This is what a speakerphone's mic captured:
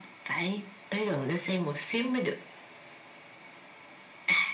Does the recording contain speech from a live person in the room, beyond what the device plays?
No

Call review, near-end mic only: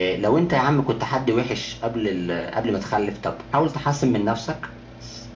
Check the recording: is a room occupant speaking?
No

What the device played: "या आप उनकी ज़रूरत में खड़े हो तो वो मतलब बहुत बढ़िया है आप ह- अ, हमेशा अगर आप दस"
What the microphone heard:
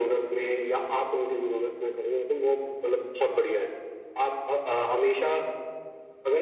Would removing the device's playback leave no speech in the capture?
Yes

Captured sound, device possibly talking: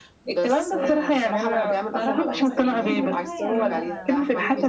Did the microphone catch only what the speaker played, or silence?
No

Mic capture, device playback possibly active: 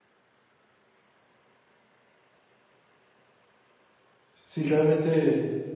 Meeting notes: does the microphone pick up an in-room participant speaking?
Yes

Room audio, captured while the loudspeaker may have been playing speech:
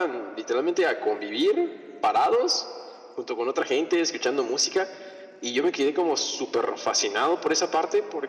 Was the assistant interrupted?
No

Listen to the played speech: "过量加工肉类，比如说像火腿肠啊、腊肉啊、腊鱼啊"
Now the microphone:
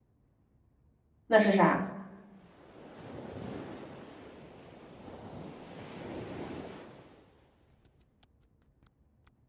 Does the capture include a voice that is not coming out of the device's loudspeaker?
Yes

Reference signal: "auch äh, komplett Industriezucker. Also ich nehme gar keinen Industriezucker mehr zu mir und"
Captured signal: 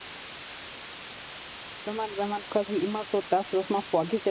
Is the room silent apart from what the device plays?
No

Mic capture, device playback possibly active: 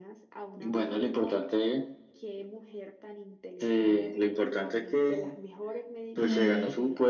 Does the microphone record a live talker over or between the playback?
Yes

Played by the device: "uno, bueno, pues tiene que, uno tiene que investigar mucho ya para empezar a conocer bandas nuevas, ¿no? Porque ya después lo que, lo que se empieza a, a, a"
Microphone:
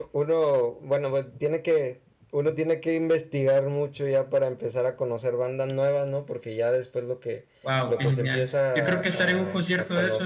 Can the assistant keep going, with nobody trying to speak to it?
No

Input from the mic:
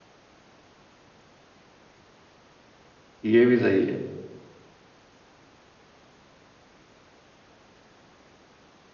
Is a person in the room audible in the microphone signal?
Yes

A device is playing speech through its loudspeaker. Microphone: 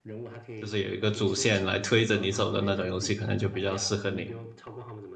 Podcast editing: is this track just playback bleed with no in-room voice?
No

